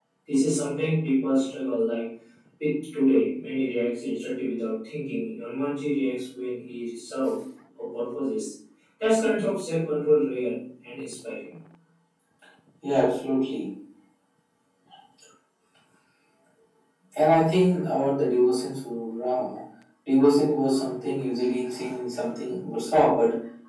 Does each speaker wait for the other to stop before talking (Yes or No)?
Yes